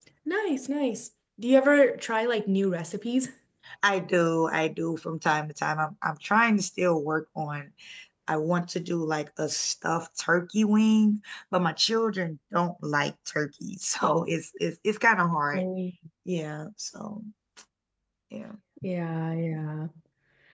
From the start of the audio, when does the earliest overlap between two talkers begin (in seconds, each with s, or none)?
none